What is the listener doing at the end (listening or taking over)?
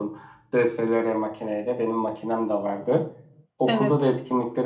listening